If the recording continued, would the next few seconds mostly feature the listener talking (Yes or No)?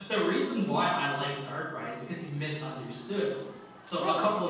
No